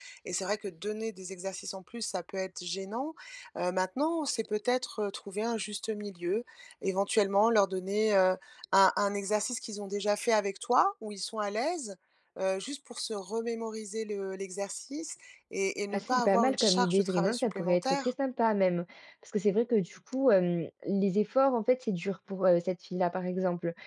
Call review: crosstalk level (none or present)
present